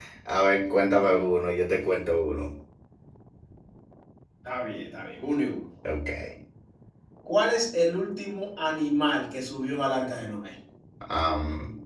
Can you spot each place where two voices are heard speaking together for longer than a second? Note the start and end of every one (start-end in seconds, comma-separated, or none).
none